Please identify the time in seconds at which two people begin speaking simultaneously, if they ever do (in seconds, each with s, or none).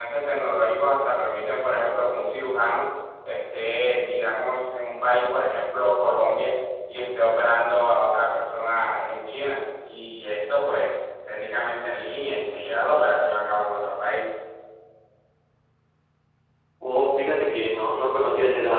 none